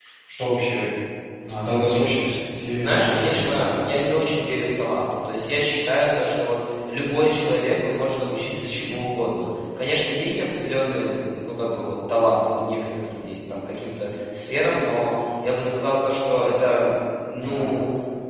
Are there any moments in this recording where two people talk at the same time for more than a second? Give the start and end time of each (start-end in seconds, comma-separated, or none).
2.8-4.0